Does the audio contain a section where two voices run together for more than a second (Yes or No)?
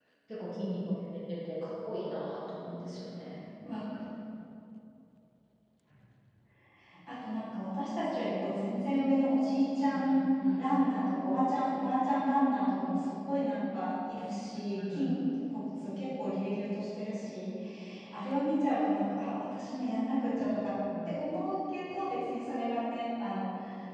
No